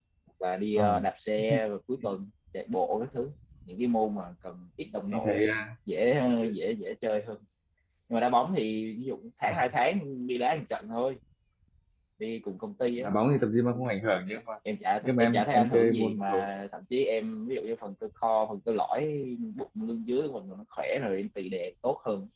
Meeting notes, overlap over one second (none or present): present